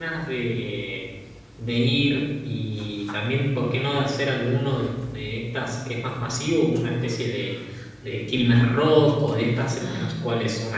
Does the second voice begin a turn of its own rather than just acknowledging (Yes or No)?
No